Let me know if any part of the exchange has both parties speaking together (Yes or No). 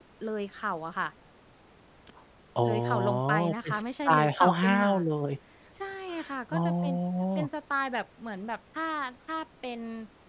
Yes